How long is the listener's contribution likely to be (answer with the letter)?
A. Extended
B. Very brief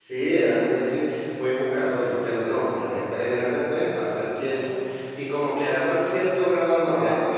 B